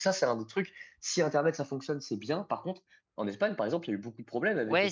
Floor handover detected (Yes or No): Yes